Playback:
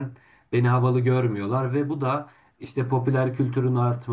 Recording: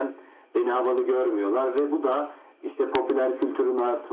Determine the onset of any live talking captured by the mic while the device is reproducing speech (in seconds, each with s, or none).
none